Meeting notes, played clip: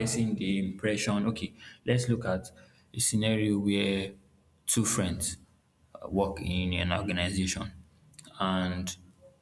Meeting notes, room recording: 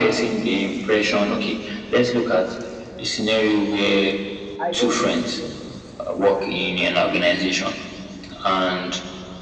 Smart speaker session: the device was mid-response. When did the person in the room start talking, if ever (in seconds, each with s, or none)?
4.6 s